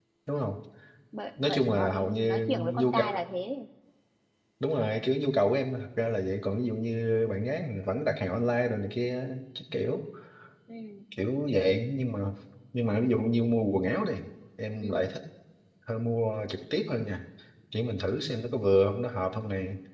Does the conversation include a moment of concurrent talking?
Yes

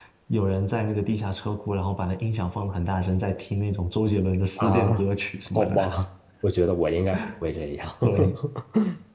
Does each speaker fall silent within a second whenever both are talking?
Yes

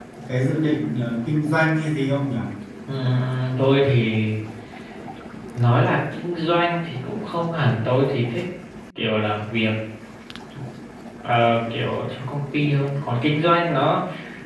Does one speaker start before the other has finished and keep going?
No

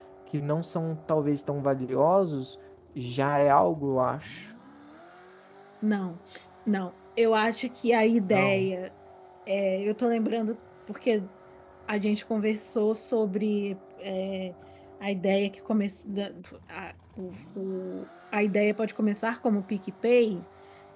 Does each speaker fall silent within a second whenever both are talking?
Yes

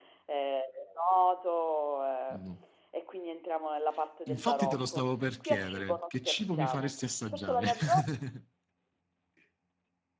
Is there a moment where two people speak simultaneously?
Yes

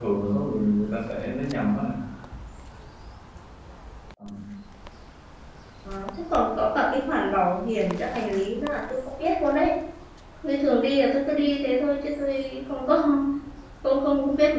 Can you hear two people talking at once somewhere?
No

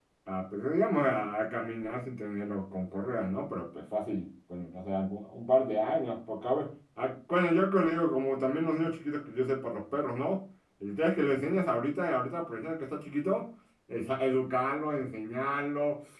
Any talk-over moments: No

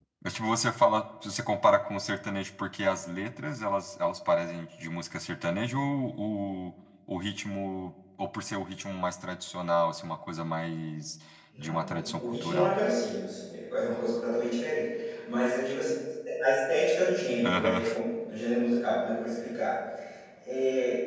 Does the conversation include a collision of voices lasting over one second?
Yes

